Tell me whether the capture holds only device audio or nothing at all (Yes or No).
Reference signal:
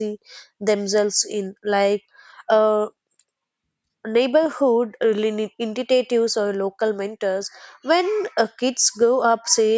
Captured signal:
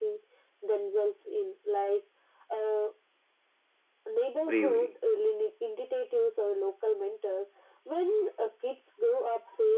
No